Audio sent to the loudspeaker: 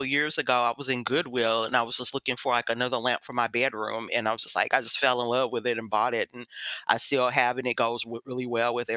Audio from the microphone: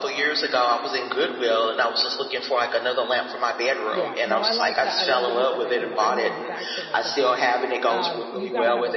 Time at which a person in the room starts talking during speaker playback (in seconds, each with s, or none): 3.9 s